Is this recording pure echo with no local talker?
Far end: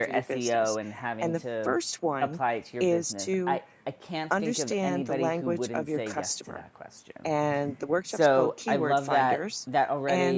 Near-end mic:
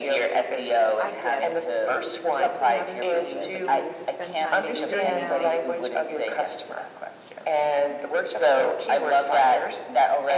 No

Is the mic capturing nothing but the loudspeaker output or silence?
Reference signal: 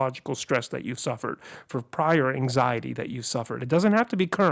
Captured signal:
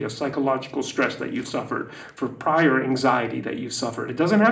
Yes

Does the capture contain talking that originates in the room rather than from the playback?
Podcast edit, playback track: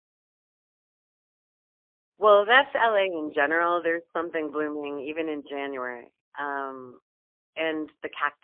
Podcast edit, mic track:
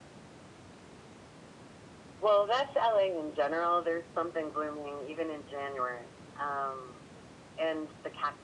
No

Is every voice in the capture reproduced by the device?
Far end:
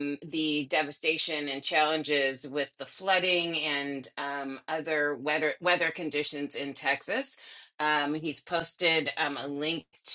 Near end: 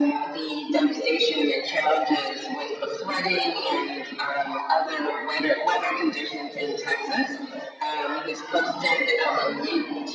Yes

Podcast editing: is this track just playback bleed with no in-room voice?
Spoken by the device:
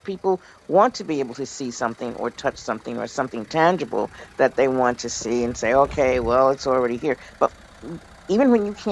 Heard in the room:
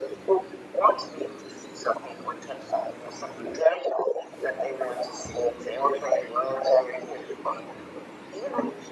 Yes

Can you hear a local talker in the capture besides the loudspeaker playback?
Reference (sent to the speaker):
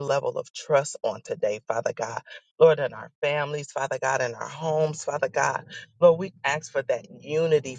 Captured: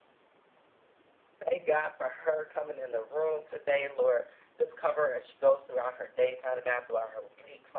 Yes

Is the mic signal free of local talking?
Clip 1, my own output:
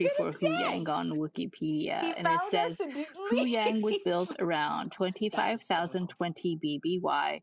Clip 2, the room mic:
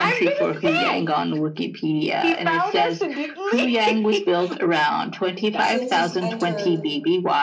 No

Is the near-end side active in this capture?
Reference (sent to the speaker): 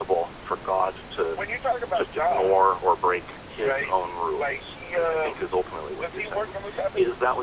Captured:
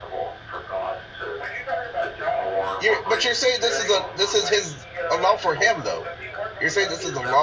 Yes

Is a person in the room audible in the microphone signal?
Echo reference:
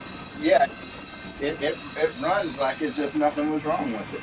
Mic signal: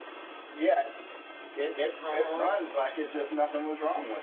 Yes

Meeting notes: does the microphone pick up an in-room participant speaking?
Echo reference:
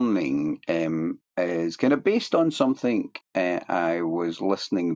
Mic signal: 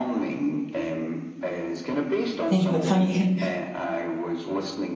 Yes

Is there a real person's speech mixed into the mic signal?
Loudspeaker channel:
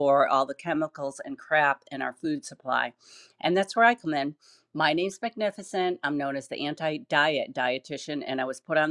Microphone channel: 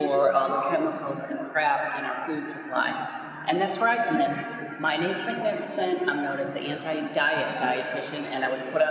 No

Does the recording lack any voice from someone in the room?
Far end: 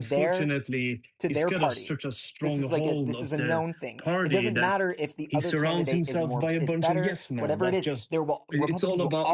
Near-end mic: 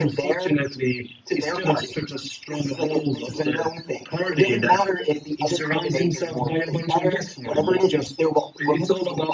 Yes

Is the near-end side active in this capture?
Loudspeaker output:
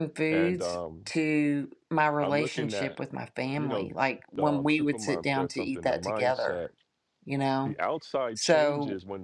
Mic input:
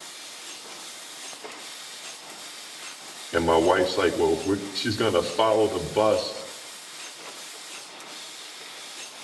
Yes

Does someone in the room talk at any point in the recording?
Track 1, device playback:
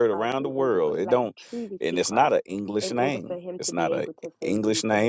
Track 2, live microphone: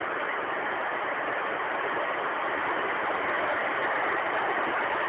No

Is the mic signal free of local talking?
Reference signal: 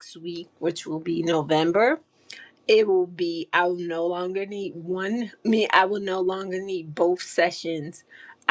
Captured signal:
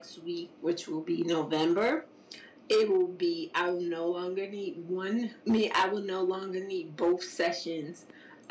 Yes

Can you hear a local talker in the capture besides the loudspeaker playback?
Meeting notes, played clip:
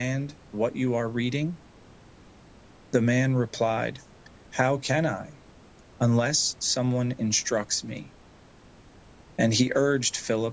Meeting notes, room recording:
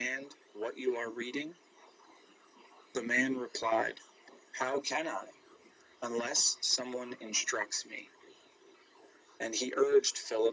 No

